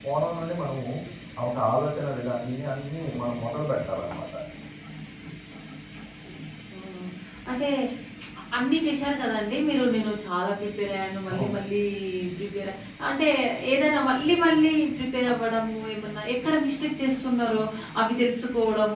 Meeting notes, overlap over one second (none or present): none